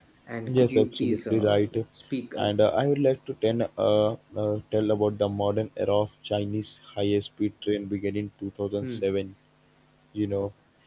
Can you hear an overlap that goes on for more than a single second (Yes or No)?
Yes